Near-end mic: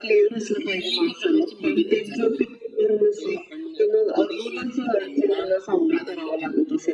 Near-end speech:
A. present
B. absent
B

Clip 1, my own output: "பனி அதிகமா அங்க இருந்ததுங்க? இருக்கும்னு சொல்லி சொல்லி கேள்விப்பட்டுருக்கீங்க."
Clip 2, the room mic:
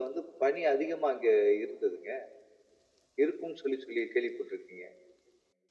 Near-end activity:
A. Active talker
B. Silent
B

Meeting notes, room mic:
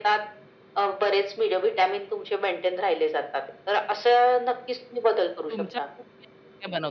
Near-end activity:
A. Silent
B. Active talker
B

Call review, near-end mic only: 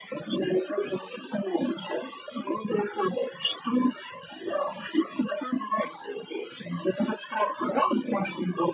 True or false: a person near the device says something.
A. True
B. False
B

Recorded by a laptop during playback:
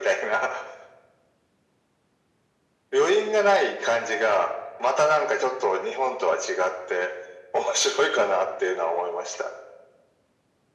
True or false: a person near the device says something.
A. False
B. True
A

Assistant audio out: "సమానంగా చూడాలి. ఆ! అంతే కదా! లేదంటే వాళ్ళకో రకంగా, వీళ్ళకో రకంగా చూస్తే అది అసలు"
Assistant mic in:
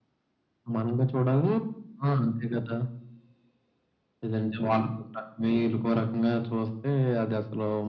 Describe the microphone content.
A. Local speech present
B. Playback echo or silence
B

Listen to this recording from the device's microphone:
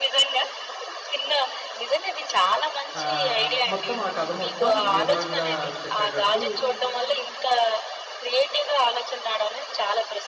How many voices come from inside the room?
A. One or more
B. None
A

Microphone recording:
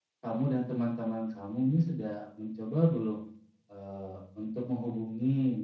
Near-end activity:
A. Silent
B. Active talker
B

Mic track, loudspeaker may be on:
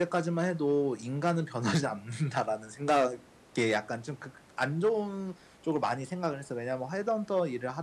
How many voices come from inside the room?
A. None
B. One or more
A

